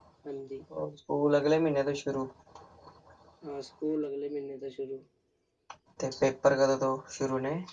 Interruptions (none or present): none